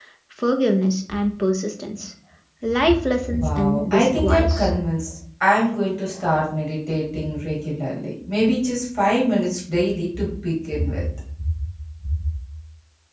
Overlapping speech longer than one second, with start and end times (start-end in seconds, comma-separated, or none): 3.3-4.7